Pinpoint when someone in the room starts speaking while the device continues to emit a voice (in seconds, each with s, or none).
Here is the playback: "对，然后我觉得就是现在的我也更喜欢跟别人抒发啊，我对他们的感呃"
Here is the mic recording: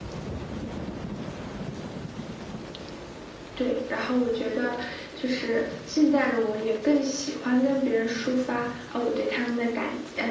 none